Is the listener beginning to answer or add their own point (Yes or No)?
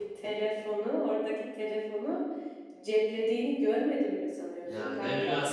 Yes